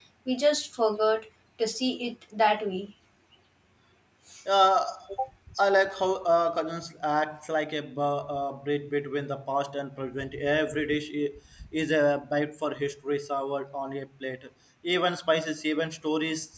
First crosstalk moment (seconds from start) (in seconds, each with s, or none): none